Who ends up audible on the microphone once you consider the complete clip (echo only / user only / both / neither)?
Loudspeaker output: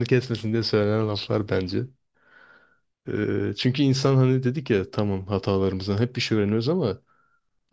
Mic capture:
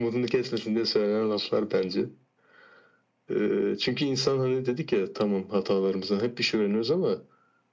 echo only